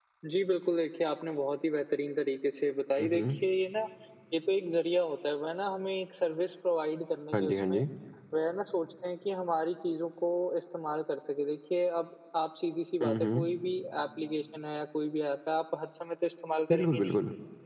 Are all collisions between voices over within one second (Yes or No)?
Yes